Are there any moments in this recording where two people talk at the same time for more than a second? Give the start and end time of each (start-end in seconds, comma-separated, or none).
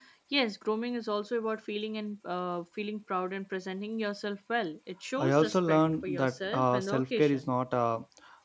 5.2-7.5